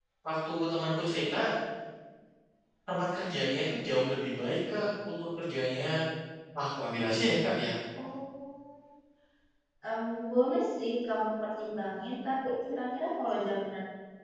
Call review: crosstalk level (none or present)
none